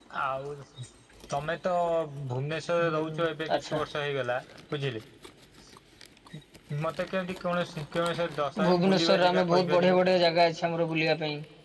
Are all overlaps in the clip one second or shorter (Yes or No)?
No